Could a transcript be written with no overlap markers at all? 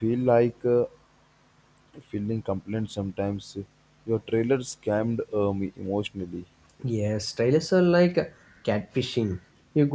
Yes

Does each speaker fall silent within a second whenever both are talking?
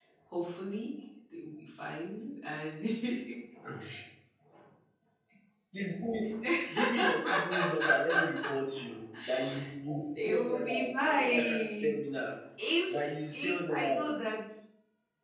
No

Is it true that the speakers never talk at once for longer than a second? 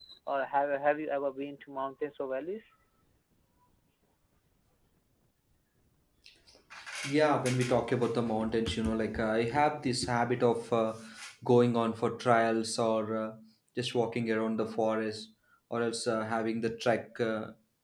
Yes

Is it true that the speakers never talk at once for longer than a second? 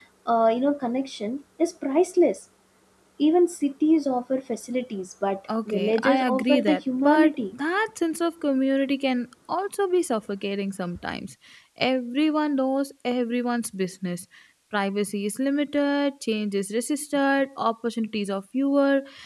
No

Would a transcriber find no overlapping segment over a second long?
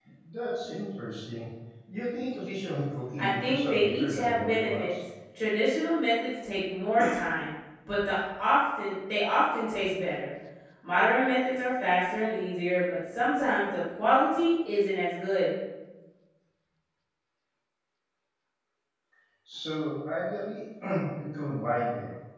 No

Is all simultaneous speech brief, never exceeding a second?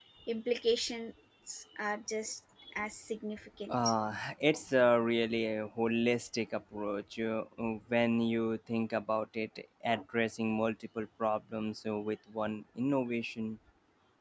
Yes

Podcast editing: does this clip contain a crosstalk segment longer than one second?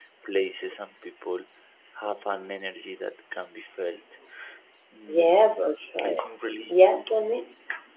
No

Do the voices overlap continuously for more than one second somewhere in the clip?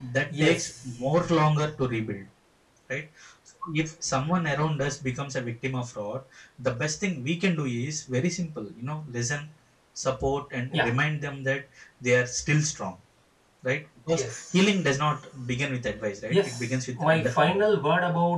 Yes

